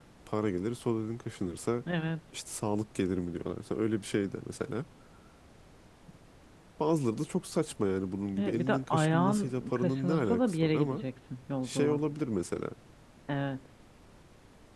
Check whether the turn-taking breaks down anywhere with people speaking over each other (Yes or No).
Yes